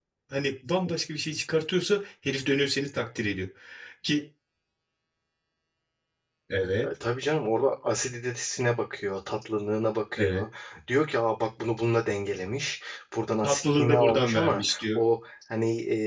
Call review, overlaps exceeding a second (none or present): present